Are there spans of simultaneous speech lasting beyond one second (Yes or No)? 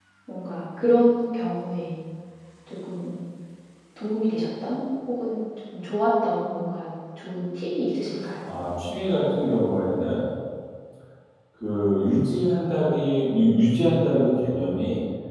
No